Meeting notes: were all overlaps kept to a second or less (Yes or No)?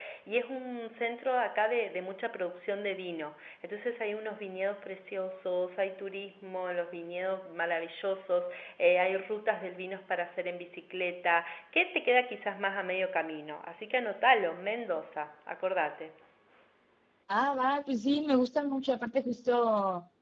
Yes